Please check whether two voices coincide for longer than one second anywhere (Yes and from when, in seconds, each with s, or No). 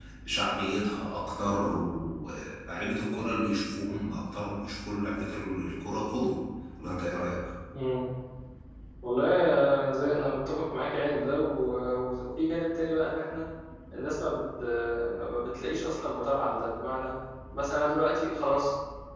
No